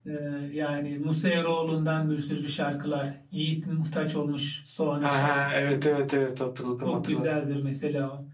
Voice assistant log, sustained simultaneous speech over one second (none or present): none